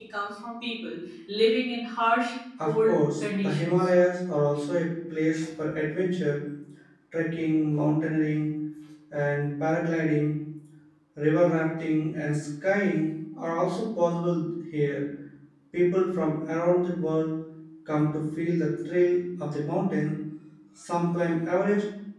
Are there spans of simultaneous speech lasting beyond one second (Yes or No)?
Yes